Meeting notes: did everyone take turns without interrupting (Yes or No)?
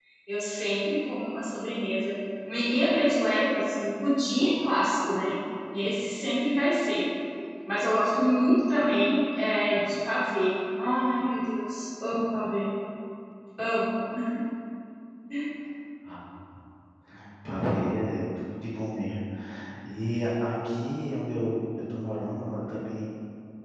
Yes